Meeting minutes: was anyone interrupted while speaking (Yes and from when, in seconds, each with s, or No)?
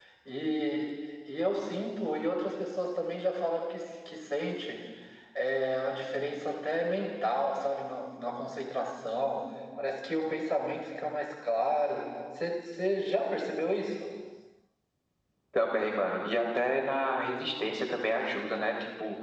No